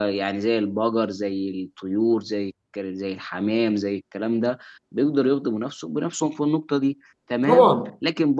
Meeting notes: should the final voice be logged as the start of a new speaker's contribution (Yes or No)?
No